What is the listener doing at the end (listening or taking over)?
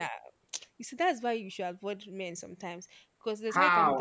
taking over